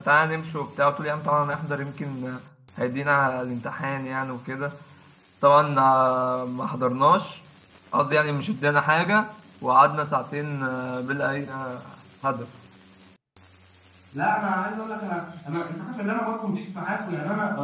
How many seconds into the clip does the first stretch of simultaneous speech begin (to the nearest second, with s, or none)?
none